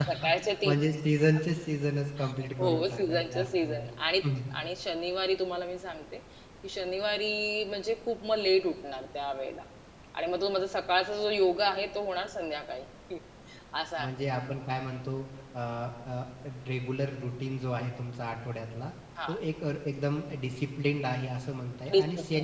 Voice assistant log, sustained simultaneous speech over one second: present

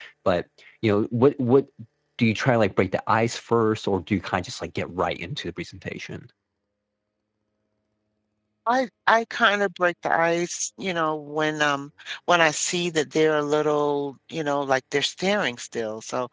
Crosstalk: none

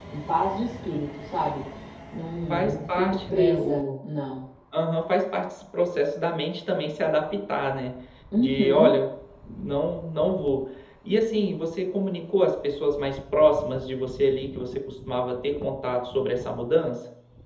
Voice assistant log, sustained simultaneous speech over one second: present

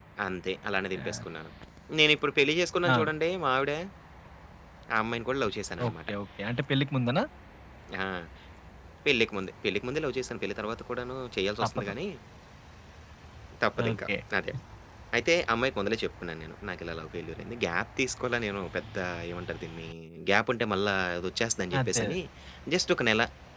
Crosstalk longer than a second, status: none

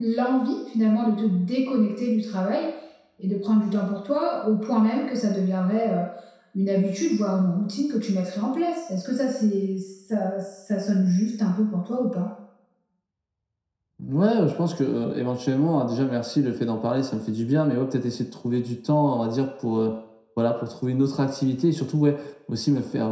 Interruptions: none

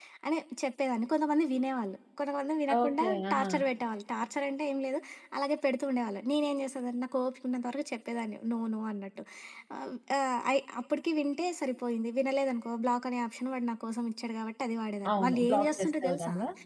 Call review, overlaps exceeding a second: present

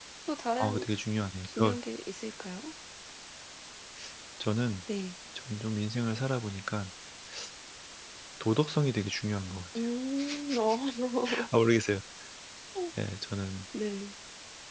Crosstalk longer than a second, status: none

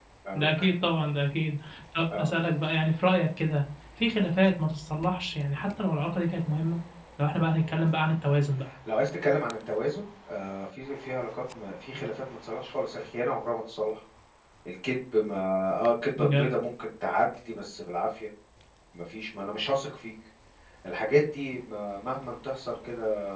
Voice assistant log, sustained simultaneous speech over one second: none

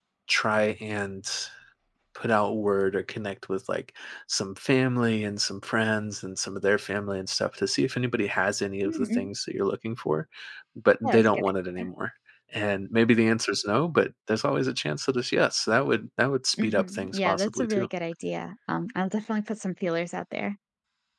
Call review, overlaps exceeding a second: present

